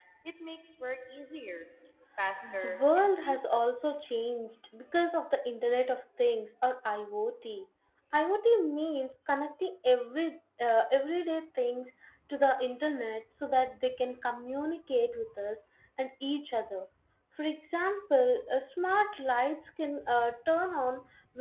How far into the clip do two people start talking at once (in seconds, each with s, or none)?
2.4 s